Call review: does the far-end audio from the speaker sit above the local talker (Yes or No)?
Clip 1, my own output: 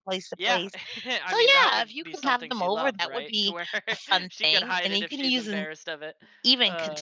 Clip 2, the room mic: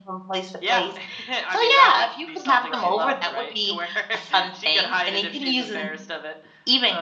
Yes